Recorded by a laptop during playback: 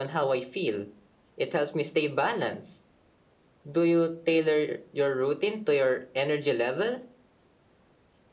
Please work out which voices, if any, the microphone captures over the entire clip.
echo only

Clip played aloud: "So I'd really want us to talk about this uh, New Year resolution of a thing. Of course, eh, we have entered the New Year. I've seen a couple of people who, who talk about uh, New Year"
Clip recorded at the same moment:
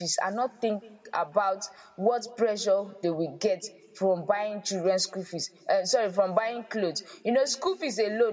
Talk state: user only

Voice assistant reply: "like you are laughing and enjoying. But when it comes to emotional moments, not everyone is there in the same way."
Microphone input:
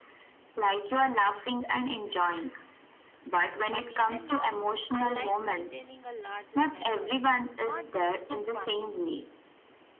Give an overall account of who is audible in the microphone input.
both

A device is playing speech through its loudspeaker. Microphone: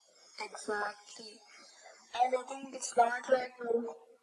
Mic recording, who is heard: echo only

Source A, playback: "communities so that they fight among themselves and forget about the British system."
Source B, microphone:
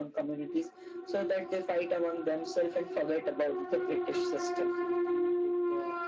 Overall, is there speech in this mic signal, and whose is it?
both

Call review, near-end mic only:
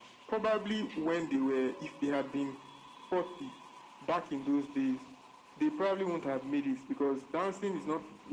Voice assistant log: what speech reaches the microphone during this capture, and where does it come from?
echo only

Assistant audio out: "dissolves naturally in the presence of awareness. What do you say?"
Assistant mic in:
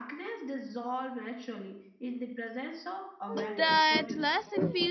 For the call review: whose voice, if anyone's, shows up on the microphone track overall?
both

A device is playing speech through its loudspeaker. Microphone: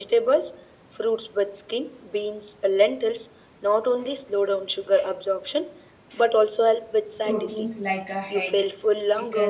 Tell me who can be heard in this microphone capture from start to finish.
both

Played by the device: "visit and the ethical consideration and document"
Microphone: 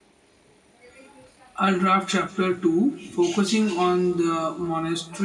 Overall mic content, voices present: user only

